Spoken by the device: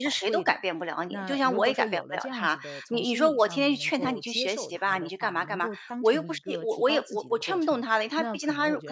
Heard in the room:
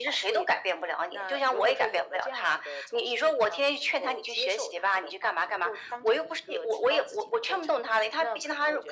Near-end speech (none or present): none